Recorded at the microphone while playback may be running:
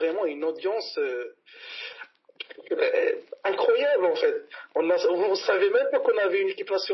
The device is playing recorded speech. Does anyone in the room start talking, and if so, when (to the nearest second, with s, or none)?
none